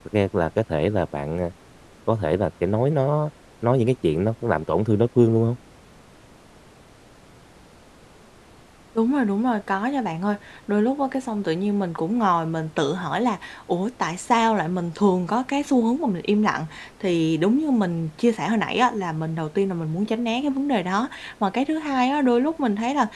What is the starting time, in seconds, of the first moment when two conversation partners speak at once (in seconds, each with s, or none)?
none